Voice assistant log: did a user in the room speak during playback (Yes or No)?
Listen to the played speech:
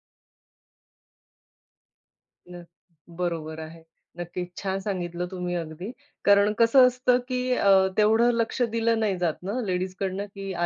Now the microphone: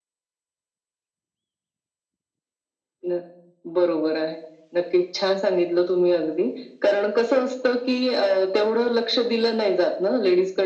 No